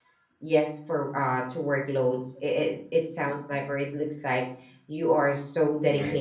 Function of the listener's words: listening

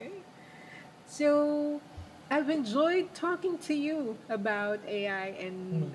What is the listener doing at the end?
listening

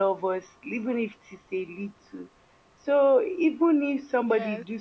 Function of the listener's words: taking over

